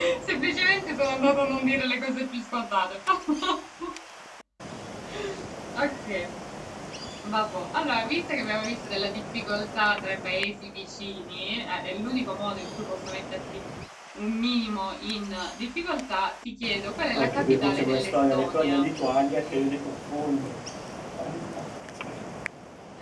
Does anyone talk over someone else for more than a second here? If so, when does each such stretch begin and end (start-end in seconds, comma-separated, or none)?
17.1-18.9